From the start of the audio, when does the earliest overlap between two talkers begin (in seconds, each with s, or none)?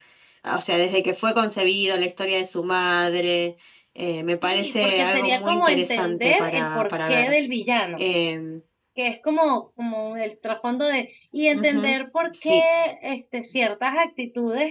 4.4 s